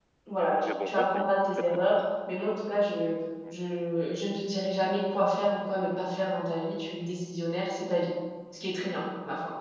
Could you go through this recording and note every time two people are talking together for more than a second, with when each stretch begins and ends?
0.6-2.0

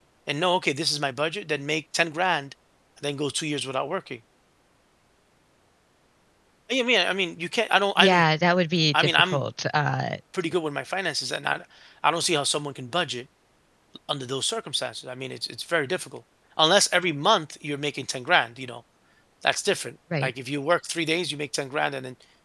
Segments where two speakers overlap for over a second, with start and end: none

